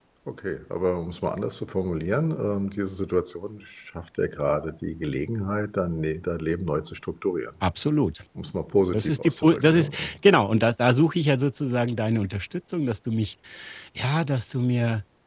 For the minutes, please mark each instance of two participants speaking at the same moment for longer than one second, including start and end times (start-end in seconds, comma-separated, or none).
8.9-10.2